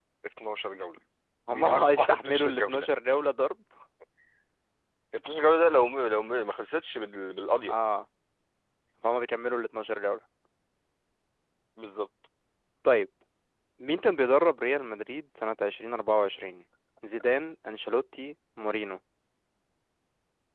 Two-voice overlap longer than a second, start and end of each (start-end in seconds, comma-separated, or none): 1.5-2.9